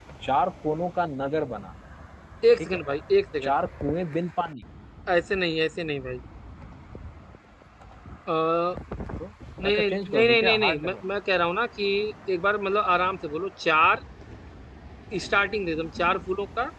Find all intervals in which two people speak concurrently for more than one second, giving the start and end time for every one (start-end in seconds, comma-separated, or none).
9.6-11.0